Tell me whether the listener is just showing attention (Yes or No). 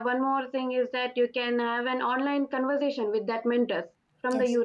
Yes